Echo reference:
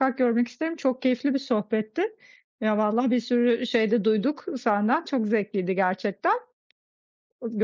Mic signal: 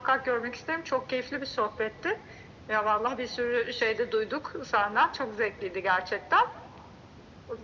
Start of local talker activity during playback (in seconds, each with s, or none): none